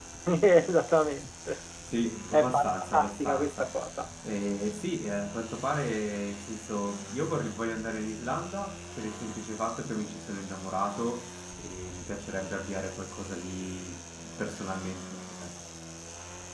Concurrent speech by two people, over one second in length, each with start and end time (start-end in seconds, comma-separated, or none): 2.3-3.7